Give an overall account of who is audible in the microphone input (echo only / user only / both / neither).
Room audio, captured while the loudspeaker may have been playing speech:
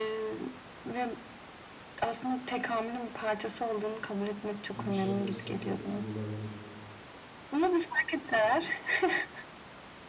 both